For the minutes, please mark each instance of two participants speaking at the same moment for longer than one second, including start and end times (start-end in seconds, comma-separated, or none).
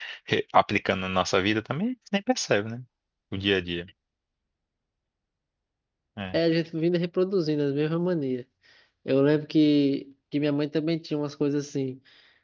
none